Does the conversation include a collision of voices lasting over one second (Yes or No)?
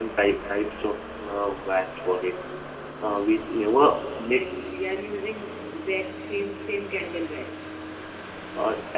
No